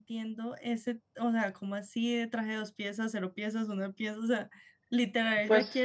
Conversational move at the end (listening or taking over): listening